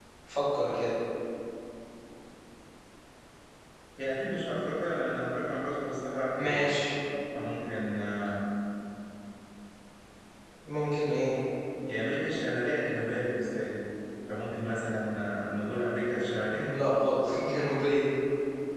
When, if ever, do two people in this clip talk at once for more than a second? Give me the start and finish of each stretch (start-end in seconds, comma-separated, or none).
none